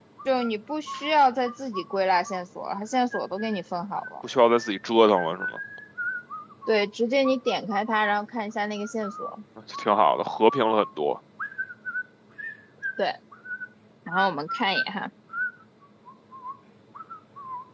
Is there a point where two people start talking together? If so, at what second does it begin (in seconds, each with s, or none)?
none